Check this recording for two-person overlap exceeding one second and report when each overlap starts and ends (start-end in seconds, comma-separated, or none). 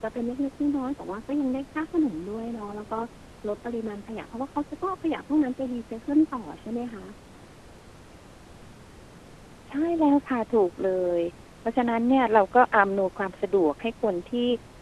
none